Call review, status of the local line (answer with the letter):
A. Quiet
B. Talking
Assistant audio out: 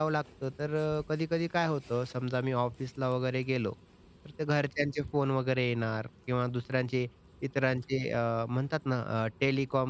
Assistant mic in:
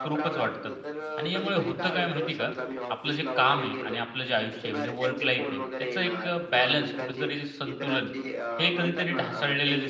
B